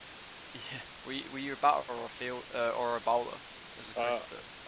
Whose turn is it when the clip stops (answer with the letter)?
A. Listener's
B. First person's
A